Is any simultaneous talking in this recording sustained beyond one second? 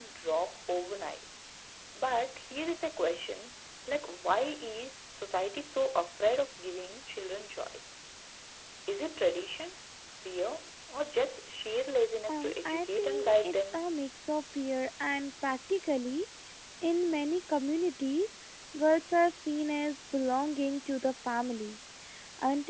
Yes, from 12.3 s

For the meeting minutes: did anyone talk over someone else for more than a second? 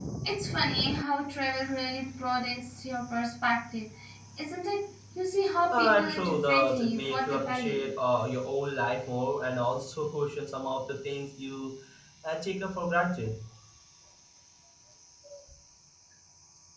Yes, from 5.7 s

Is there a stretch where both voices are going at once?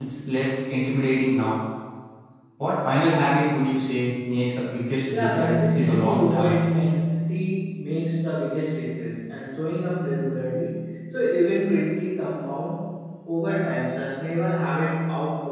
Yes, from 5.1 s

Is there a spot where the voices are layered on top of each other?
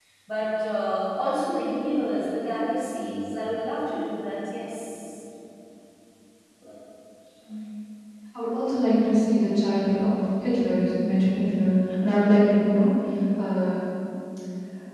No

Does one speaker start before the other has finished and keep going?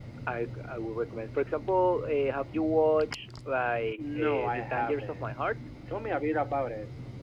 Yes, from 3.9 s

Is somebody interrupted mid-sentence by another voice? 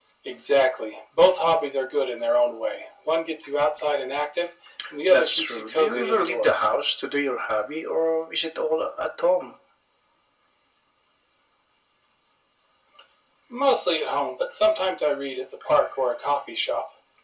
Yes, from 5.1 s

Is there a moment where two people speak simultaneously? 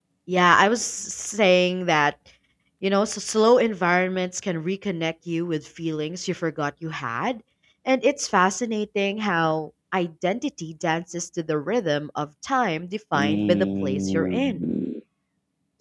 Yes, from 13.1 s

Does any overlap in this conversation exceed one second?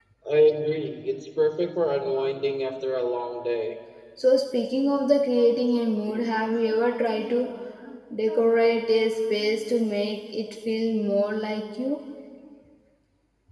No

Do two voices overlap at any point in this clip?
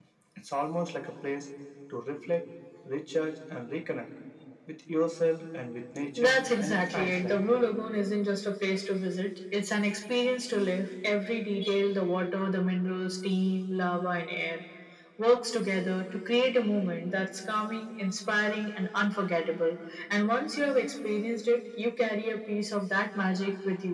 Yes, from 6.2 s

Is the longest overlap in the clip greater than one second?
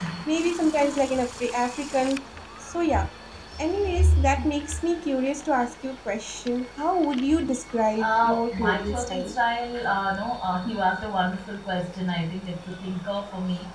Yes, from 8.0 s

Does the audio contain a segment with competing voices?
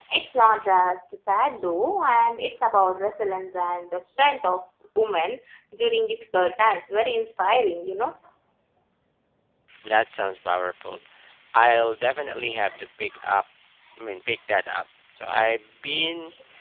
No

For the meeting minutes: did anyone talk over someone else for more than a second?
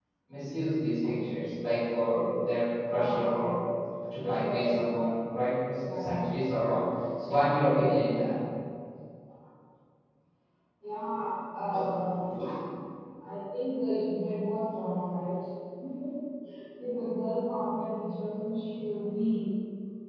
No

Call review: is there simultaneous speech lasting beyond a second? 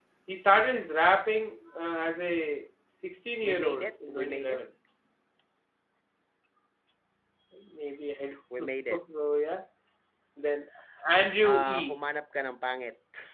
Yes, from 3.4 s

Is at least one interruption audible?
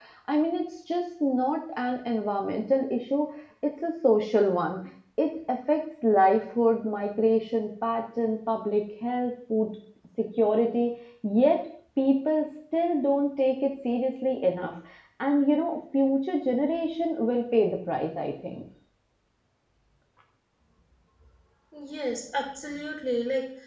No

